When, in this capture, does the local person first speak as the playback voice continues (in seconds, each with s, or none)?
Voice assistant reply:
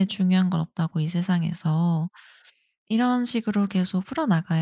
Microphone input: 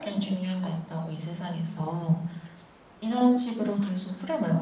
none